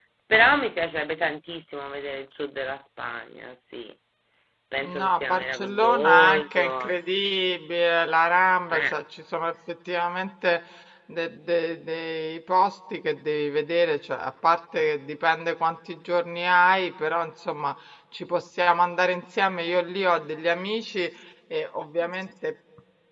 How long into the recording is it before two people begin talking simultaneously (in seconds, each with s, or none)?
4.9 s